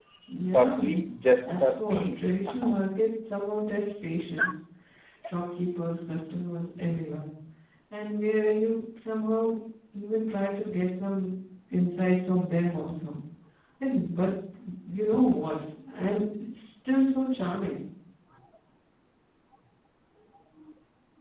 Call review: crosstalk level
present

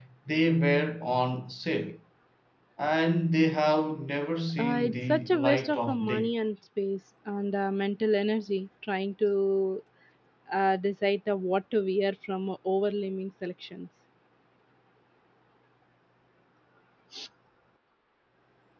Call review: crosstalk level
present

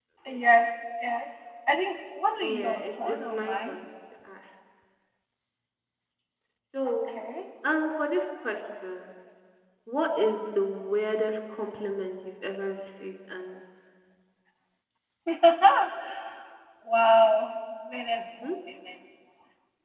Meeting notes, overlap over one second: present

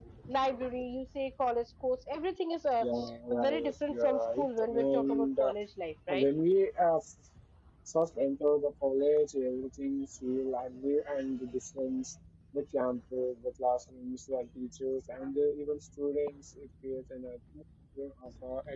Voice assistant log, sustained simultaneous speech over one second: present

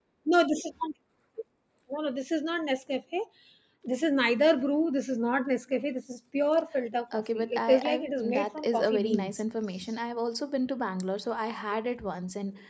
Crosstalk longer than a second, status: present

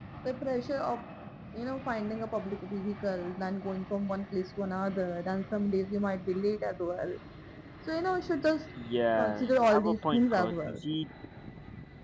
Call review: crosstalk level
present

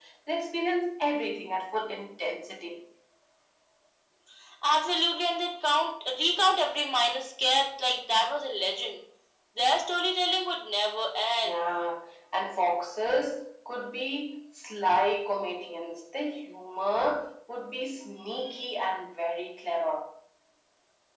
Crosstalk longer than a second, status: none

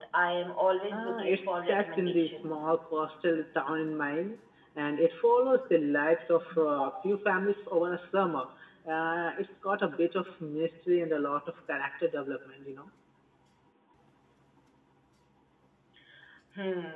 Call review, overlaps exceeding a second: present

